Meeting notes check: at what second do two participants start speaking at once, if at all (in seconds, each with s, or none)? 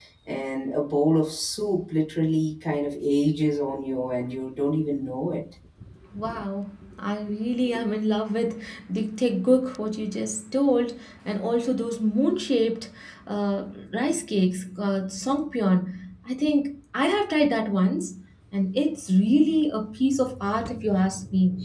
none